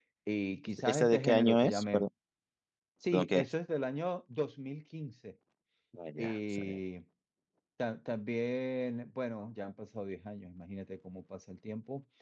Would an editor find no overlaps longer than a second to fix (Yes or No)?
No